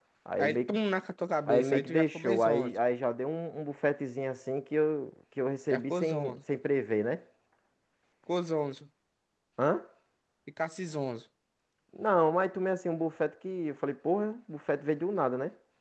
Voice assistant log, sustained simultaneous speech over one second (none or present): present